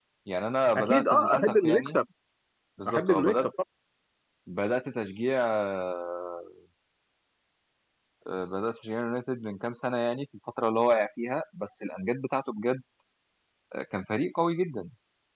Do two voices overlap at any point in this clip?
Yes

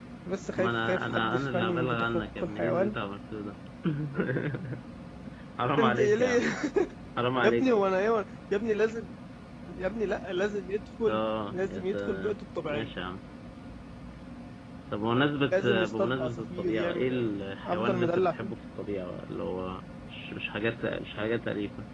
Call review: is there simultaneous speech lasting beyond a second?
Yes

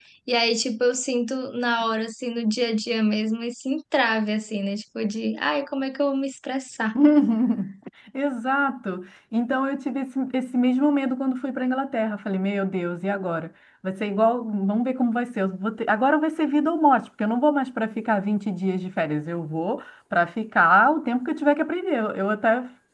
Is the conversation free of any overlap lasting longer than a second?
Yes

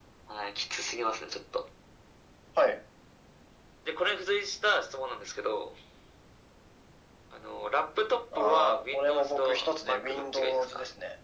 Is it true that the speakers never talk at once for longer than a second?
No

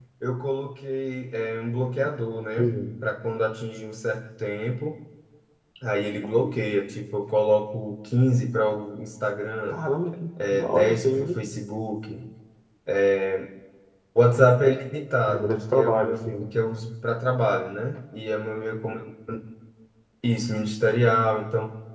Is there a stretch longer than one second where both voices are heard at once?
Yes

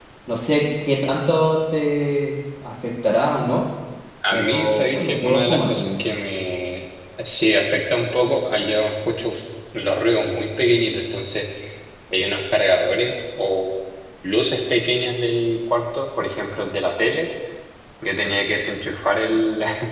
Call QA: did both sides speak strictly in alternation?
No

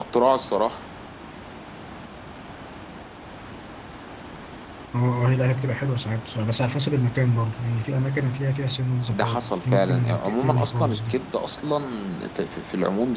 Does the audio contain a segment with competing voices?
Yes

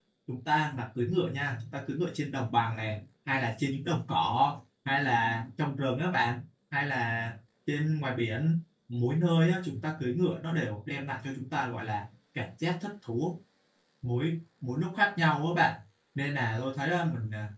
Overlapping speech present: No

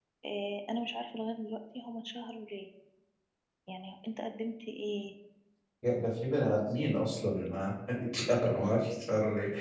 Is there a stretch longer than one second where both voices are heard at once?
No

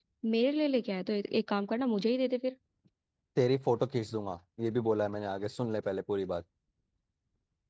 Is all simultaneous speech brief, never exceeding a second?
Yes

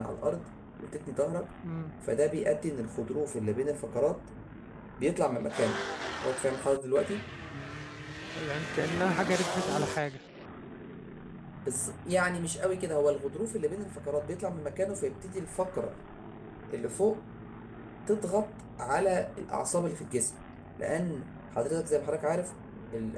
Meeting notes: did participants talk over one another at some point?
No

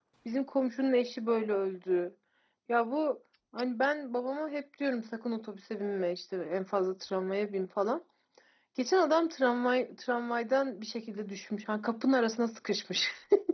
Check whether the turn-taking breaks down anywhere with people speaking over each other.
No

